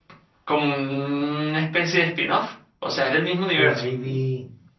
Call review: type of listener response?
taking over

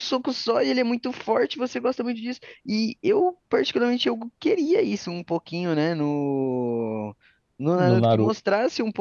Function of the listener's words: listening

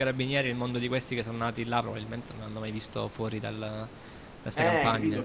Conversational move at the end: taking over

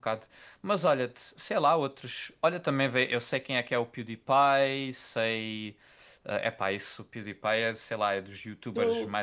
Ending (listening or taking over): listening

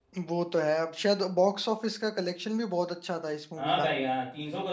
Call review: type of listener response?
taking over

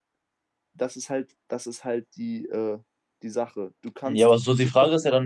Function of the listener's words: taking over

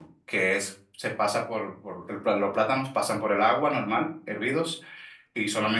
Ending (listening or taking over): listening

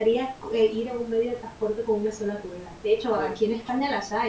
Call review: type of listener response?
listening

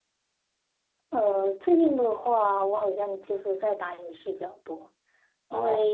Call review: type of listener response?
listening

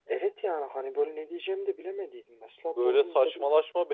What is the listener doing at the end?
taking over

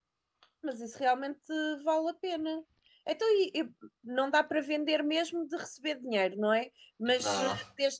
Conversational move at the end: listening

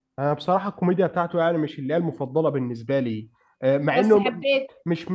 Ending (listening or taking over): listening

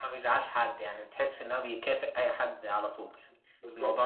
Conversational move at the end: taking over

